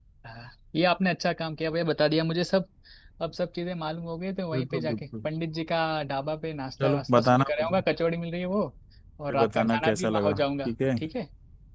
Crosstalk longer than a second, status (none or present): present